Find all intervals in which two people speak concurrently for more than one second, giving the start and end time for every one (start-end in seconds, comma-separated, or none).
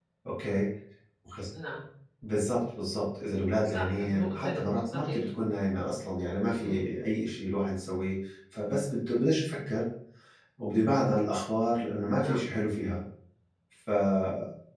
3.6-5.2